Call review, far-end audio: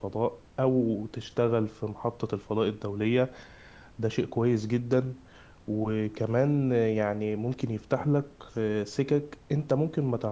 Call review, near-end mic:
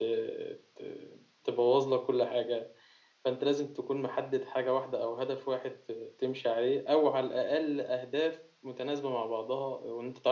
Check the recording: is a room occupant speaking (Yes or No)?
Yes